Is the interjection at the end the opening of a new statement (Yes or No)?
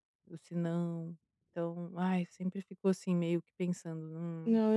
Yes